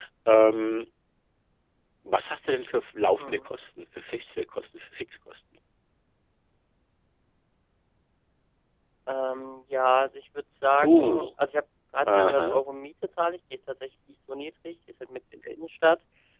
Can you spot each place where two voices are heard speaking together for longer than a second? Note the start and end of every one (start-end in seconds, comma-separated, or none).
none